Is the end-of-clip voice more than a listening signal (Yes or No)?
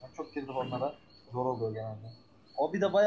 No